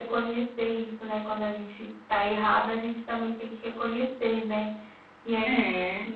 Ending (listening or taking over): listening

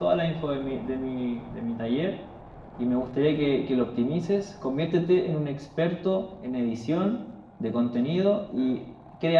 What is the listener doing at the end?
listening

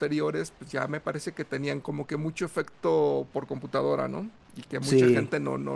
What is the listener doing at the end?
taking over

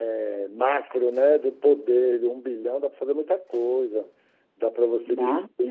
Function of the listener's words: listening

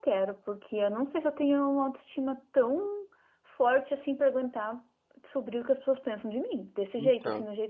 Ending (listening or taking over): listening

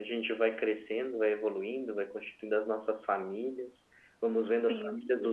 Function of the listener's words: listening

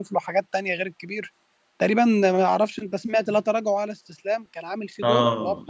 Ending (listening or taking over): taking over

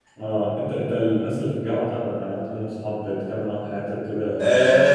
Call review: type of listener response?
taking over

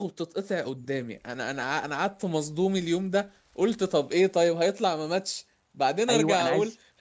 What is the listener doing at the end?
taking over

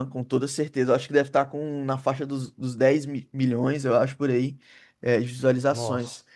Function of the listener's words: listening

